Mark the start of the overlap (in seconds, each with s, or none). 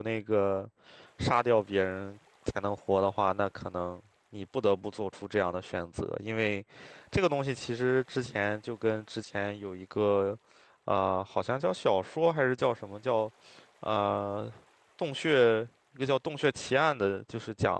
none